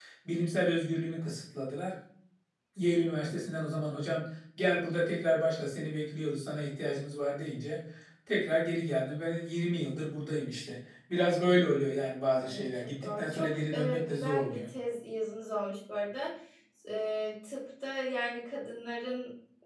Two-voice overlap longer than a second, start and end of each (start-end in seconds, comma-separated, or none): 12.4-14.6